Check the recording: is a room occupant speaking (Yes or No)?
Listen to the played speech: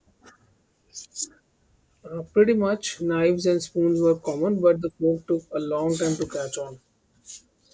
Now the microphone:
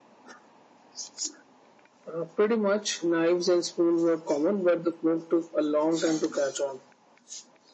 No